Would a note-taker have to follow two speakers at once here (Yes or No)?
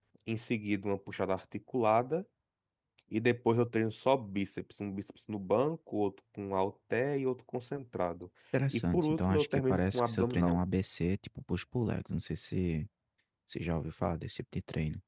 Yes